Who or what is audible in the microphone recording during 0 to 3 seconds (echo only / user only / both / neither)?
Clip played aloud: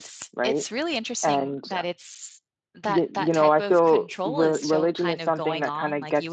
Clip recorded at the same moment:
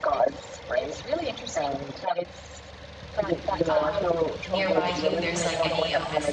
echo only